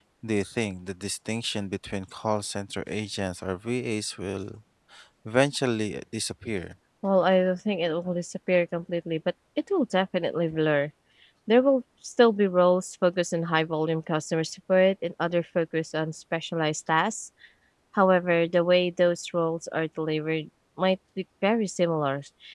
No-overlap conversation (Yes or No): Yes